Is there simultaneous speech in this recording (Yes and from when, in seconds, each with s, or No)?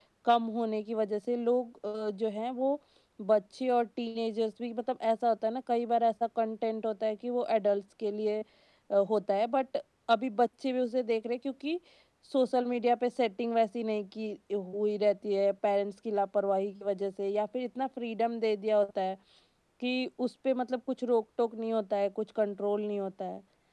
No